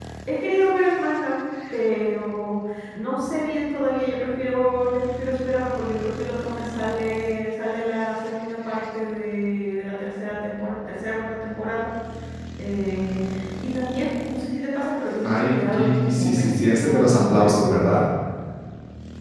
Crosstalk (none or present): present